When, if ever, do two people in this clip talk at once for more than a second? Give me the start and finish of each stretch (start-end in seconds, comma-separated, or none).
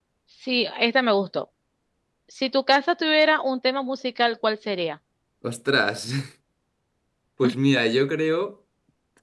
none